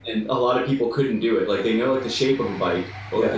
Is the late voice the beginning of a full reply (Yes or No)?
No